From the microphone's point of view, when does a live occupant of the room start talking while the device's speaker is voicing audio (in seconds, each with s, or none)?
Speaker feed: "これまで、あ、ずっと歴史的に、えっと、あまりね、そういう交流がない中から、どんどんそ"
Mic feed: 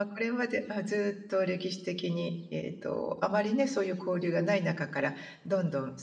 none